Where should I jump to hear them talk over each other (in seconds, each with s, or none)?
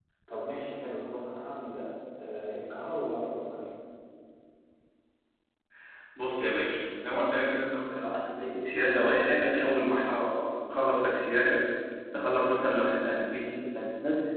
none